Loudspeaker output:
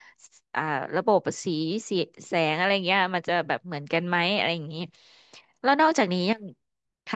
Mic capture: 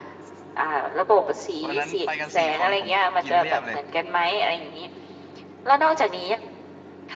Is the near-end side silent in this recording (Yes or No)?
No